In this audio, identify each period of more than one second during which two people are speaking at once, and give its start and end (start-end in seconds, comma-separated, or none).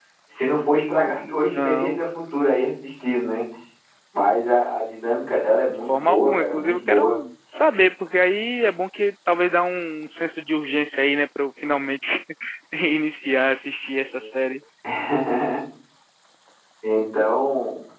0.7-2.0, 5.7-7.2